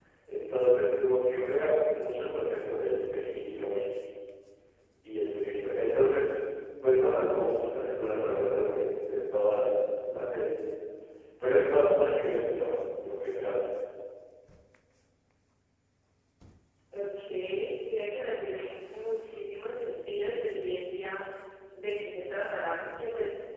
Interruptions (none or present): none